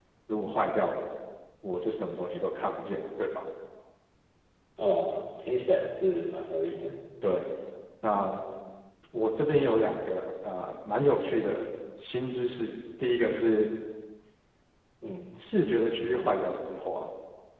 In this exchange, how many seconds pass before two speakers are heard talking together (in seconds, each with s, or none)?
none